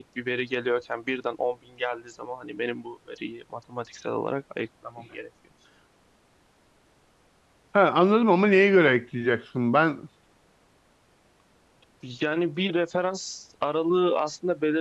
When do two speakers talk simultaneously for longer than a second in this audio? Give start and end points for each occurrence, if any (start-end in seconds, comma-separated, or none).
none